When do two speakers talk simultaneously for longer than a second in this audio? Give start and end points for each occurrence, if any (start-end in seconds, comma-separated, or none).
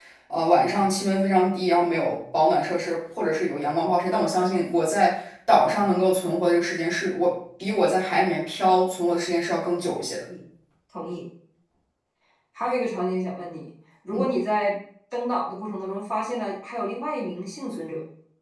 none